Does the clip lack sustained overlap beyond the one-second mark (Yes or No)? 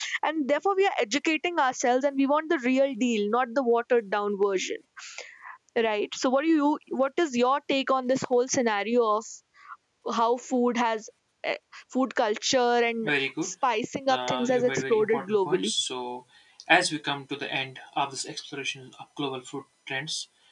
No